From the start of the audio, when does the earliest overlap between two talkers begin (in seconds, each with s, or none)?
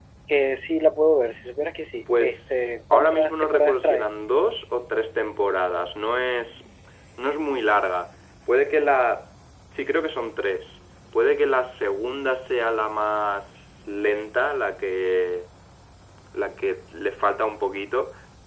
2.1 s